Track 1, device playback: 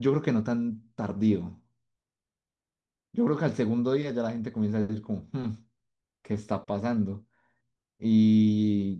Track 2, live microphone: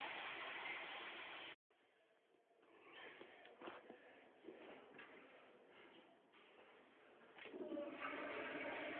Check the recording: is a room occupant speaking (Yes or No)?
No